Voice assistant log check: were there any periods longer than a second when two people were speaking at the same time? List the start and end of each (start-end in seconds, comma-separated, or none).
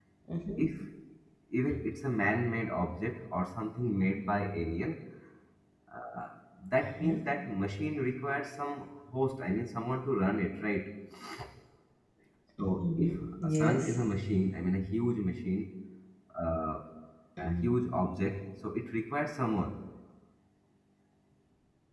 12.6-14.0